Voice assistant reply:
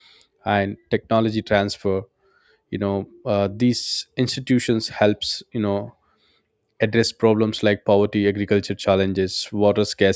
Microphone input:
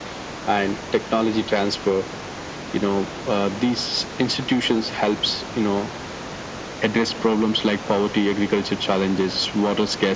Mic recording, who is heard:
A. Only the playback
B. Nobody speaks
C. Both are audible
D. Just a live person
A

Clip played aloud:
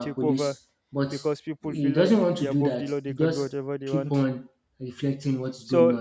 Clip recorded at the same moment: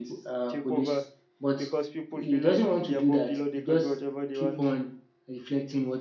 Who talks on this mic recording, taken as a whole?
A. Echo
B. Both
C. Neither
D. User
A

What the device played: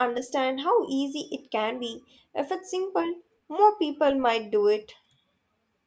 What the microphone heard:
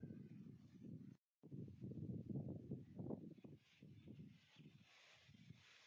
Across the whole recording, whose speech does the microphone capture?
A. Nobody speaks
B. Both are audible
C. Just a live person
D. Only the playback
A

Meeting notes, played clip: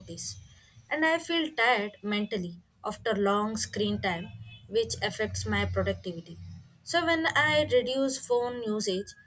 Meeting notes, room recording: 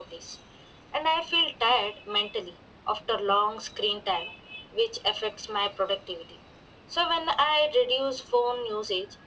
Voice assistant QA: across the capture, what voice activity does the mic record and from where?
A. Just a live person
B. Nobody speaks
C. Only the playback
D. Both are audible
C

